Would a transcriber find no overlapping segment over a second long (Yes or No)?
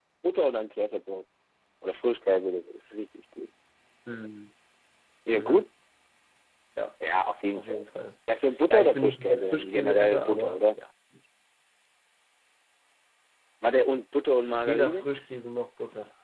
No